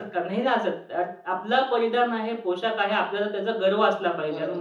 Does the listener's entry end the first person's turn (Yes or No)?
Yes